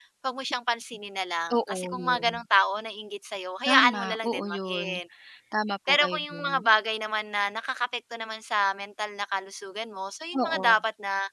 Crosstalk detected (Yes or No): Yes